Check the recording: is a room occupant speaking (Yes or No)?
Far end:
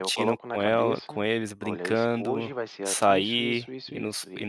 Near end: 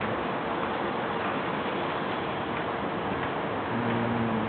No